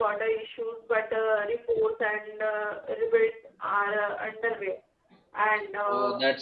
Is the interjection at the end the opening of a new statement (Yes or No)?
Yes